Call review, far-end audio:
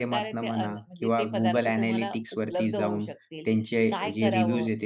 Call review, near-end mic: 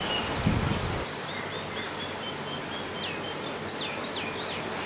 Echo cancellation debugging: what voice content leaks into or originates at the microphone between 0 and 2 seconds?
neither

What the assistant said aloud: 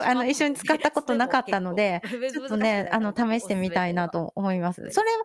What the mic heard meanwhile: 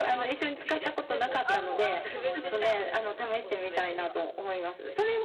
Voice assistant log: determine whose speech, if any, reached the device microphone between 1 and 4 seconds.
both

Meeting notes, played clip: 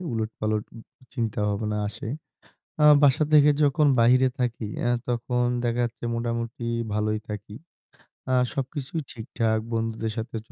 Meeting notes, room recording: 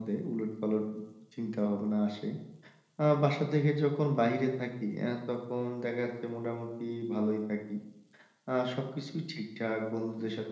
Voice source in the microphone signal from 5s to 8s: echo only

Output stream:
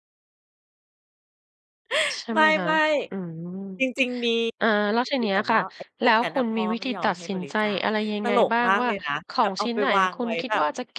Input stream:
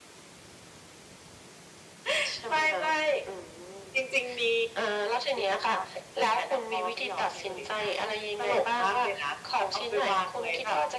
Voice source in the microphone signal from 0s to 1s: neither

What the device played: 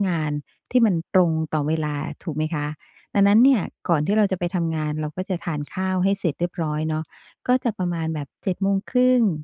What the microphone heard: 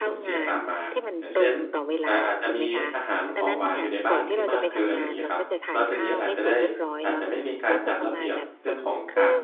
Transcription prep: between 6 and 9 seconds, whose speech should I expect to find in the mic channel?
both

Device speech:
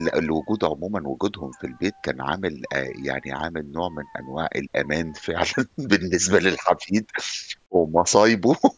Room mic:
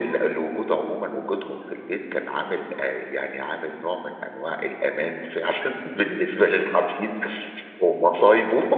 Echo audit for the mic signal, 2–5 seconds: echo only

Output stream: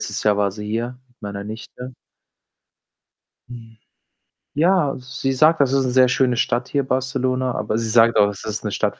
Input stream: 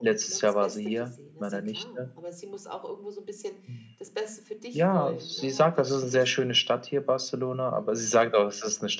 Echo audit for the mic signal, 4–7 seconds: both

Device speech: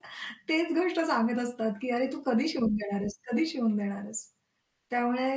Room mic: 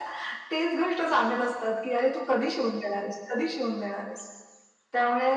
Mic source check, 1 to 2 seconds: echo only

